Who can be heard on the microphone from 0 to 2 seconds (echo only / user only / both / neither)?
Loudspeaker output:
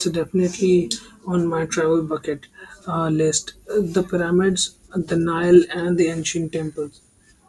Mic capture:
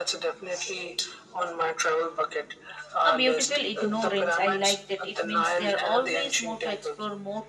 echo only